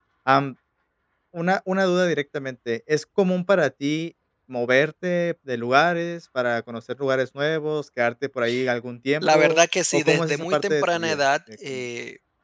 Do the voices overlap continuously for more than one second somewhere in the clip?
Yes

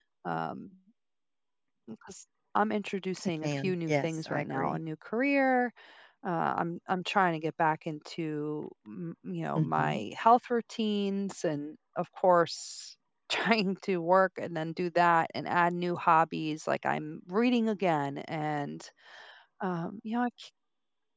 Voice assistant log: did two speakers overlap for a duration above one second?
Yes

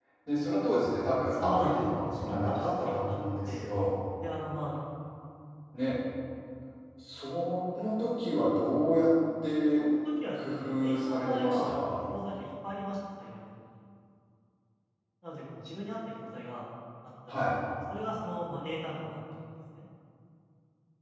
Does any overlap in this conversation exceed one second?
Yes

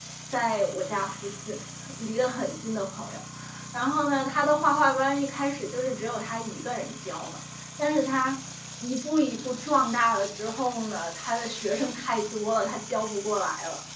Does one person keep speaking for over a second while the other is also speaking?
No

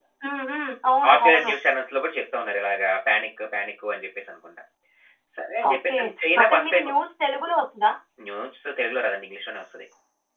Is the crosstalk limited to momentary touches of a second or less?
Yes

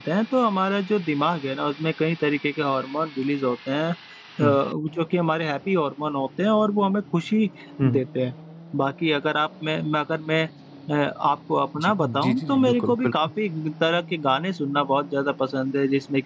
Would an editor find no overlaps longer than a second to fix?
No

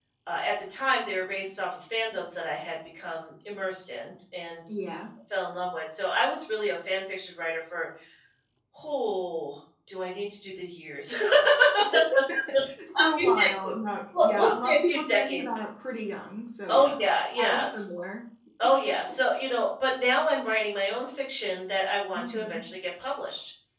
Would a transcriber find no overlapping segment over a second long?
No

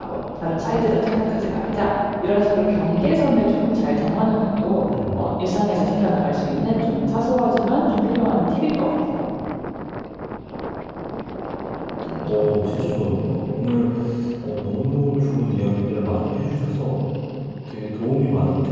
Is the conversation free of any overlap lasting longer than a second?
Yes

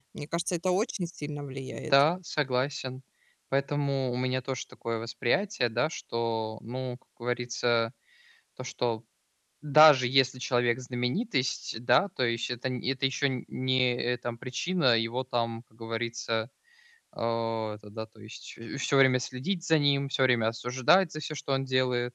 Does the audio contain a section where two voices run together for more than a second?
No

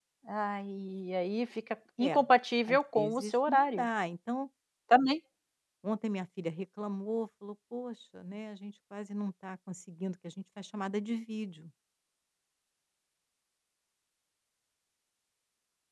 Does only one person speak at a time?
No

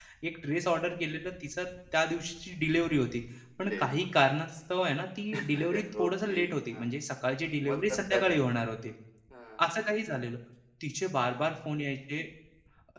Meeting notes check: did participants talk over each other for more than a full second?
Yes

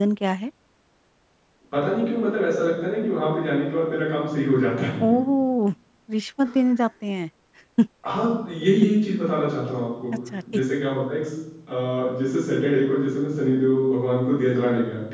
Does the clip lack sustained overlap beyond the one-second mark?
Yes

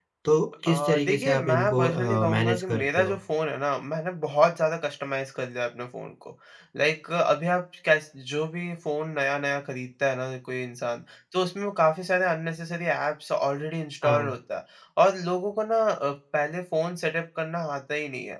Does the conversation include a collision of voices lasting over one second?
Yes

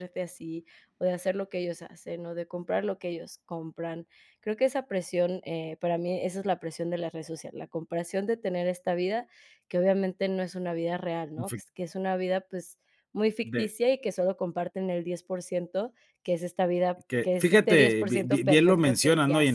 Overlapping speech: Yes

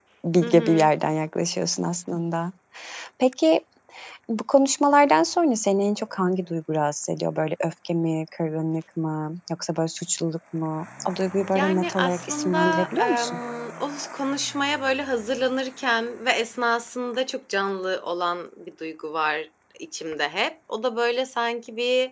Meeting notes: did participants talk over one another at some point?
Yes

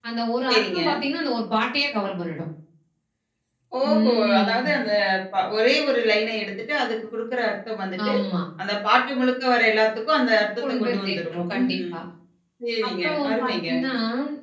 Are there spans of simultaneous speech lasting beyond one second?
Yes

